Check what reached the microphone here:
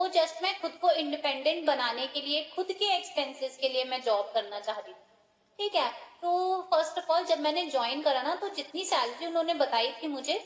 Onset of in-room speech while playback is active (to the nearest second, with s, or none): none